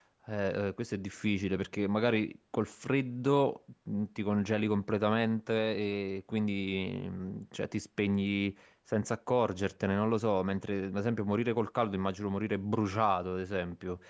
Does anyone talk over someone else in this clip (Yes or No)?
No